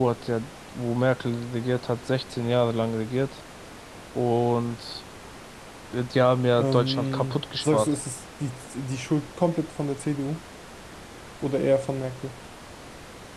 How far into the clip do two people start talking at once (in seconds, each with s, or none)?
6.6 s